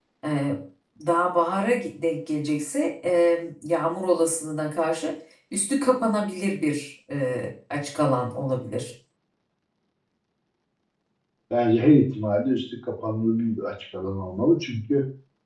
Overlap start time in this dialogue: none

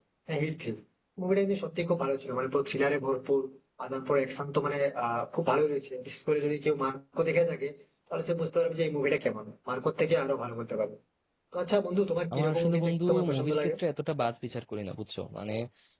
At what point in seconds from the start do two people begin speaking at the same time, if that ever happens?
12.3 s

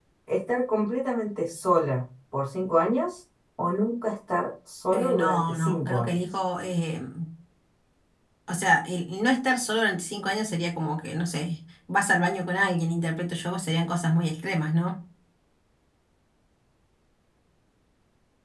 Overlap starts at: 4.9 s

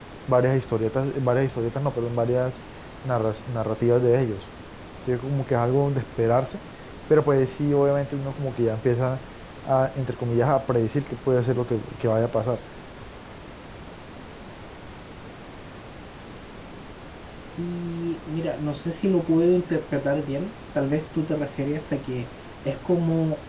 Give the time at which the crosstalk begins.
none

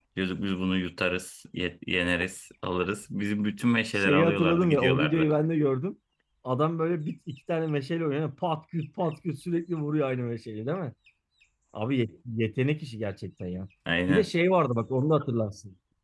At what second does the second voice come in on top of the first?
4.0 s

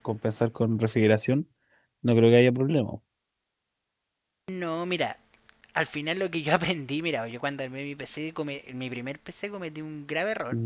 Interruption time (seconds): none

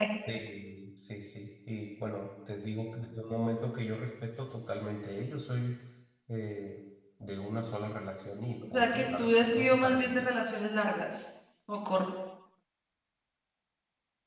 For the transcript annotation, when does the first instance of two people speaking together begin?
8.6 s

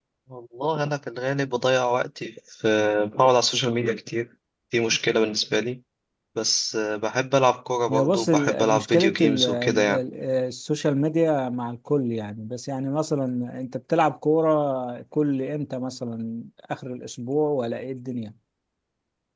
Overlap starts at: 7.9 s

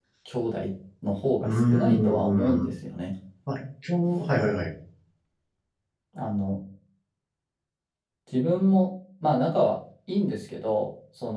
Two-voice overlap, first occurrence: 1.4 s

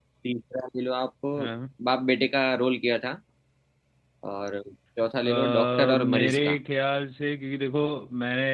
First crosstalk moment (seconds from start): 5.2 s

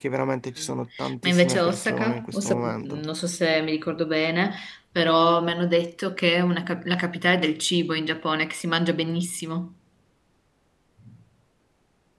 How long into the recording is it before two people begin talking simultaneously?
1.2 s

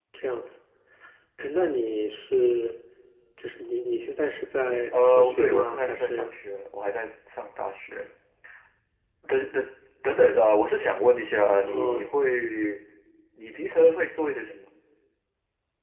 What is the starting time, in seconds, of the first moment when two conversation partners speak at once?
4.9 s

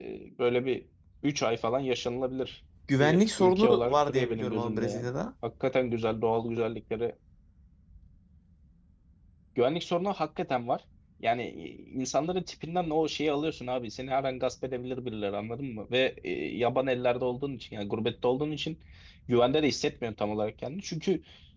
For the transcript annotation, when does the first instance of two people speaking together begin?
2.9 s

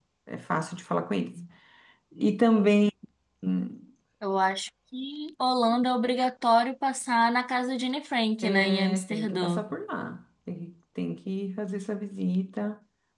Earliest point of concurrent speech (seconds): 8.4 s

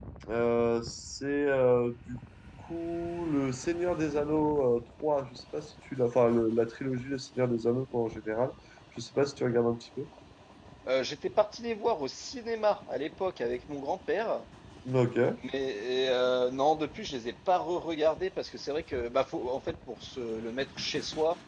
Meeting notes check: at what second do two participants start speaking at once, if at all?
none

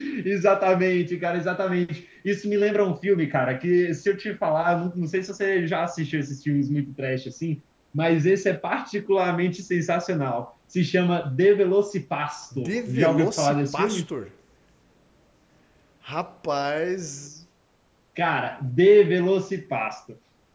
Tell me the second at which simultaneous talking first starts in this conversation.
12.5 s

